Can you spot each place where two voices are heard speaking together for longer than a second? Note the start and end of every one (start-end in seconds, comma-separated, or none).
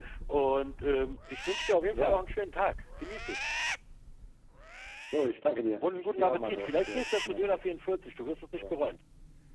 5.8-7.7